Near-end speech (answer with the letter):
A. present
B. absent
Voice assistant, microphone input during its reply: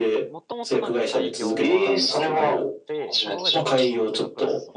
A